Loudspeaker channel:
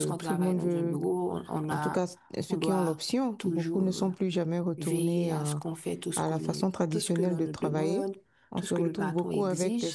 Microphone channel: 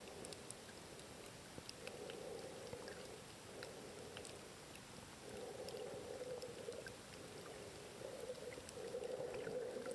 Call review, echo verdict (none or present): none